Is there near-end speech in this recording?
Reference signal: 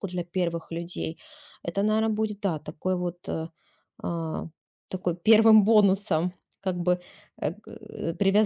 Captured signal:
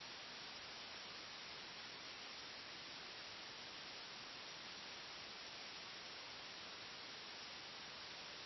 No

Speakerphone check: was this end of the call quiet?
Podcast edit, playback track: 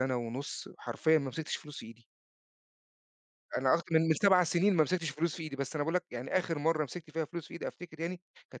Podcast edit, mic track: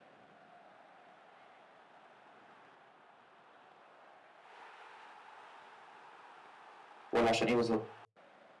No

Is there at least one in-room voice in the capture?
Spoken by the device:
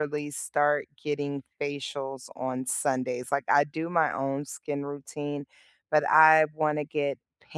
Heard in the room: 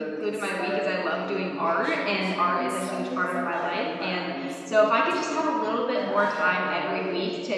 Yes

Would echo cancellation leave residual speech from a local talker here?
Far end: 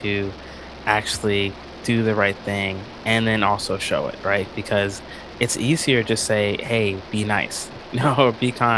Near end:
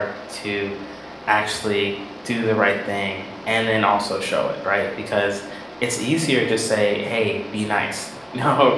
No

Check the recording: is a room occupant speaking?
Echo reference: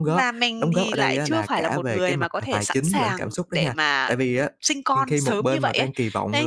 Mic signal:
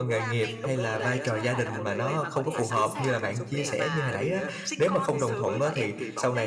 Yes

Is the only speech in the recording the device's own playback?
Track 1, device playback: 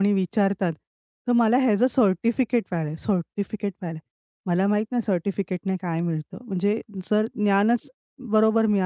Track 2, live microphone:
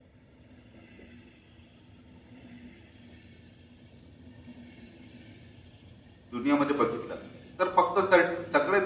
No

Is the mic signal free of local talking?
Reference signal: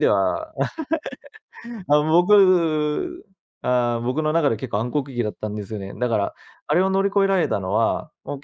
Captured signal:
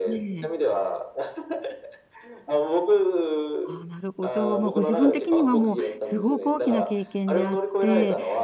No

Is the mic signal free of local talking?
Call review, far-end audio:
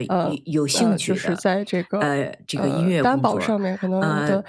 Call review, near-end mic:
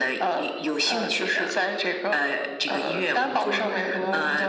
No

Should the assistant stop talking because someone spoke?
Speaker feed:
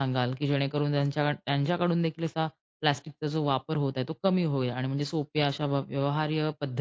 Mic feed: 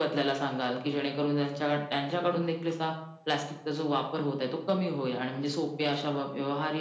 No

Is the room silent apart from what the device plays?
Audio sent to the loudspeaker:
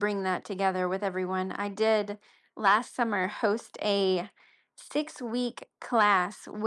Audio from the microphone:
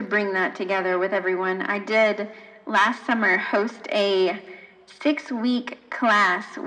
Yes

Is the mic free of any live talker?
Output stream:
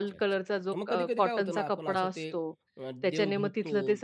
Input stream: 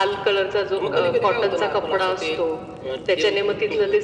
No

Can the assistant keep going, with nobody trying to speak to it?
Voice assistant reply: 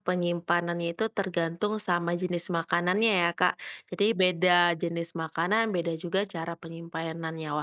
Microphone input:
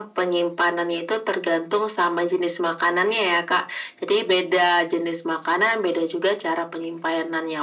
Yes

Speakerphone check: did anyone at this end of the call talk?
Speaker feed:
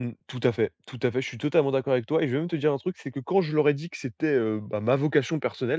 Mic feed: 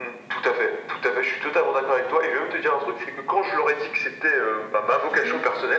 Yes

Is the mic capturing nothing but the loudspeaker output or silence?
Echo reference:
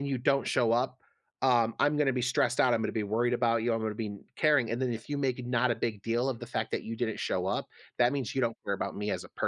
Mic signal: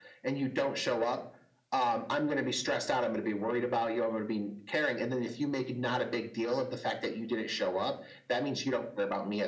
Yes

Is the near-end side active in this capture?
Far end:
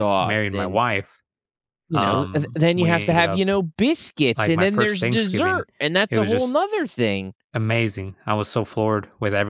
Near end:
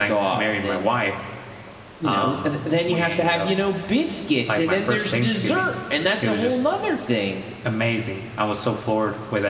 No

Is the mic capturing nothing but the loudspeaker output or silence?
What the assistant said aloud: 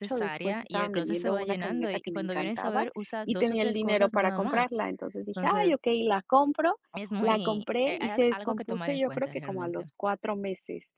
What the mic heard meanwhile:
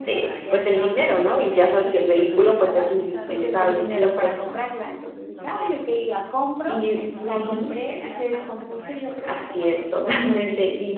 No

